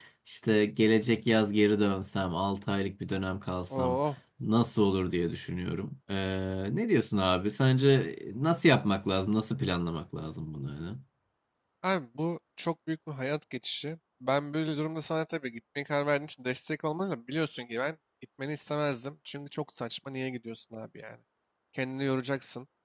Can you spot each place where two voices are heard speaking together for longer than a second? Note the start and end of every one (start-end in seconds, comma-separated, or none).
none